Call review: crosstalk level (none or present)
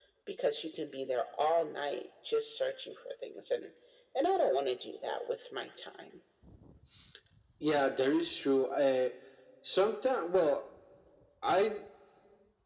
none